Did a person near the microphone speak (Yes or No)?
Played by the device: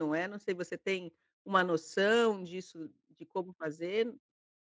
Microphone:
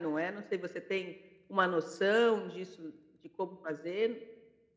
No